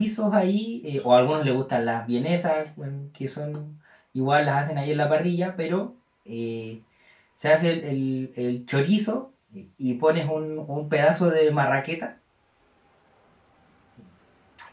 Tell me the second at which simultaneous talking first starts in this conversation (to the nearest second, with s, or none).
none